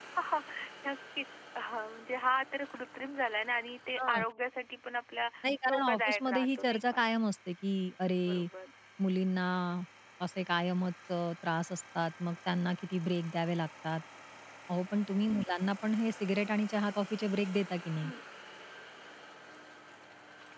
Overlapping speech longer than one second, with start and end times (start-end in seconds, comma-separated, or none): 5.7-7.0